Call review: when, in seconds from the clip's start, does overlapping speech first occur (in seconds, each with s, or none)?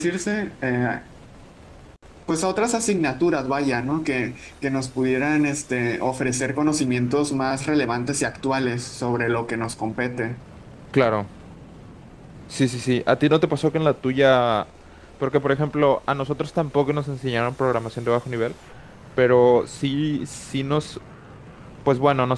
none